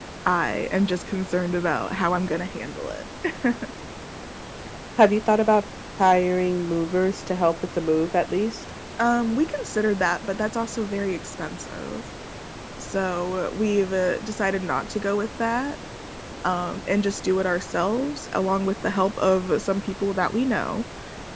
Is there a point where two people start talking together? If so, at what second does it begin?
none

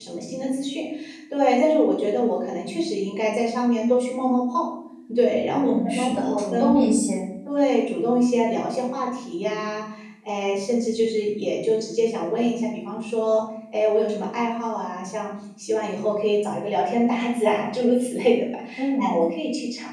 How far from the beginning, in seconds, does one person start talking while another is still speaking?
5.5 s

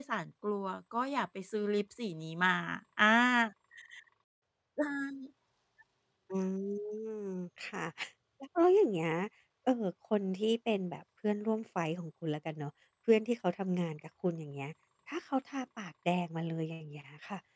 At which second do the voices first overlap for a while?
none

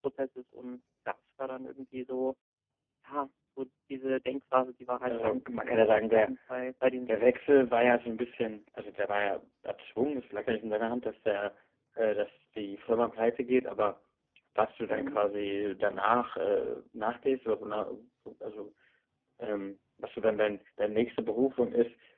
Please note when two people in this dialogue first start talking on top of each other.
5.1 s

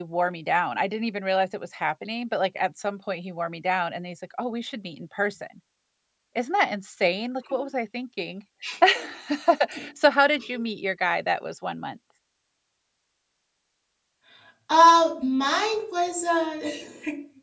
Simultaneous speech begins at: none

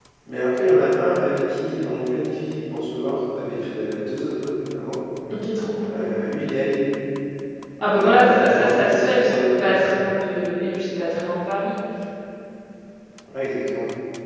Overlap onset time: 7.9 s

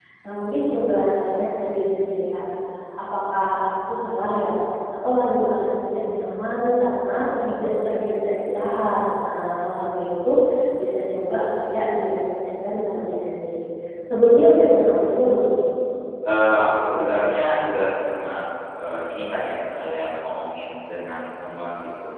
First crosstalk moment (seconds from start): none

